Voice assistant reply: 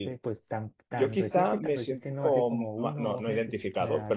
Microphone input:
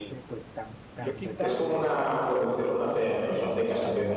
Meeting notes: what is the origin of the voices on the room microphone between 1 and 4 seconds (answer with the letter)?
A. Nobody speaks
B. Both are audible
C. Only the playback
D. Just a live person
B